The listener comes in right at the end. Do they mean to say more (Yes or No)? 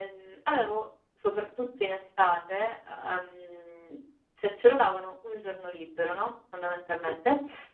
No